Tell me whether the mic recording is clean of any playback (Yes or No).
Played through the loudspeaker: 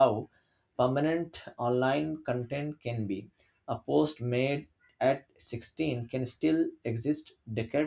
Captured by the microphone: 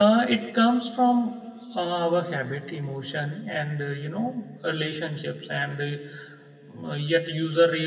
Yes